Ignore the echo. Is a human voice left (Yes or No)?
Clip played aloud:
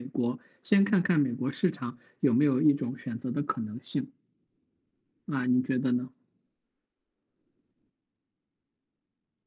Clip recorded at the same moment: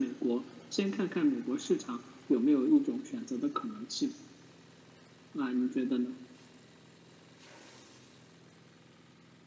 No